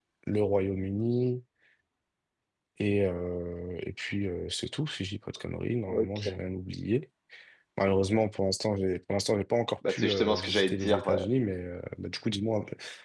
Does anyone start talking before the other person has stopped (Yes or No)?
Yes